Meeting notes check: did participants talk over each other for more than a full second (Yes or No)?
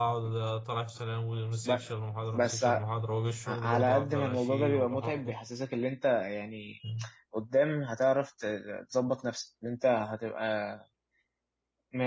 Yes